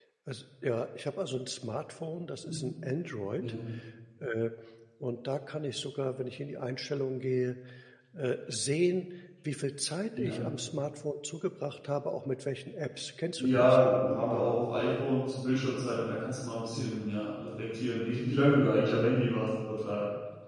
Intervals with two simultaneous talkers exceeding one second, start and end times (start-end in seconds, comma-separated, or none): none